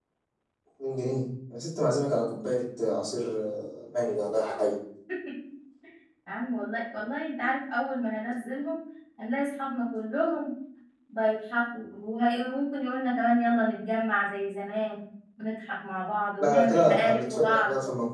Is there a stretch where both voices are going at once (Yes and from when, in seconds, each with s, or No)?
Yes, from 16.4 s